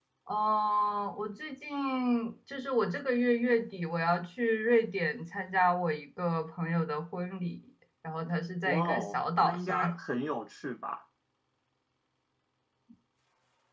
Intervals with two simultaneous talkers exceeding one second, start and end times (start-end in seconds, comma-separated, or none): 8.6-9.9